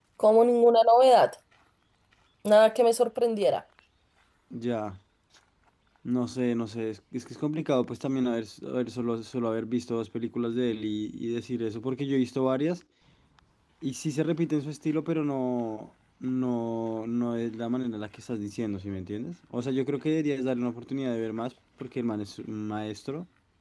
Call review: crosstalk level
none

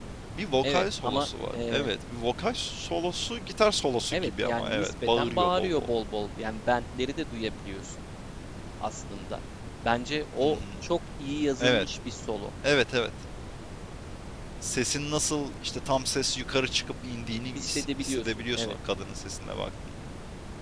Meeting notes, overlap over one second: present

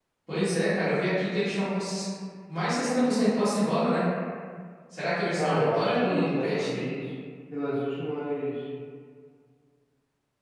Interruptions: present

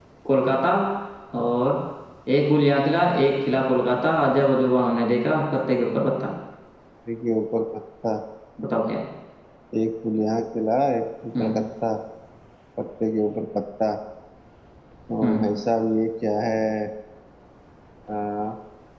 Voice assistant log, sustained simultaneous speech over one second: none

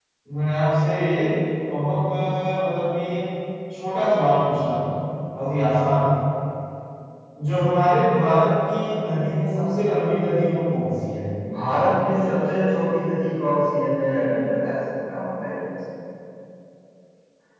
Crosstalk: none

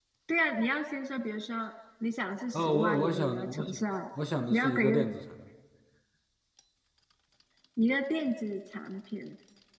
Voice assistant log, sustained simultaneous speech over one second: present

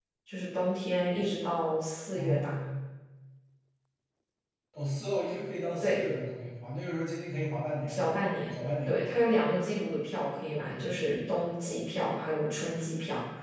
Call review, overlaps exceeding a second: none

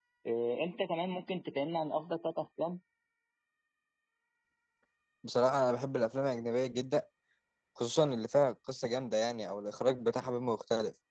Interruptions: none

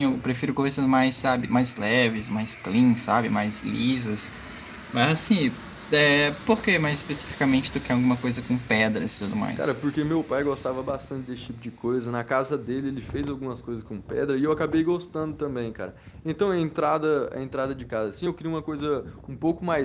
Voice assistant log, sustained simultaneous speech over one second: none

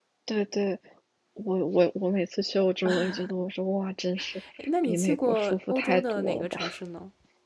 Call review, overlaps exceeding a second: present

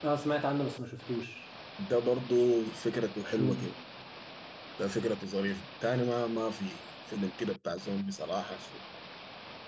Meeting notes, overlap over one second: none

